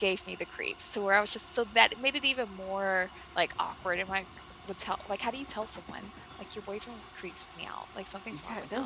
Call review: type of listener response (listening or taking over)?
taking over